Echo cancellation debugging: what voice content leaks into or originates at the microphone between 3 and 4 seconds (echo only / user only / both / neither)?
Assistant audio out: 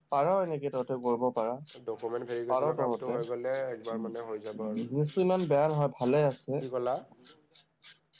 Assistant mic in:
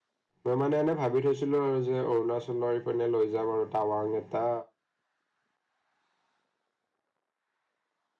user only